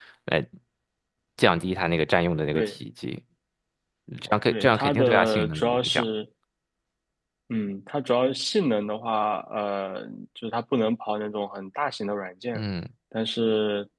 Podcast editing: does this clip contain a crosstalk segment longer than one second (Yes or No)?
Yes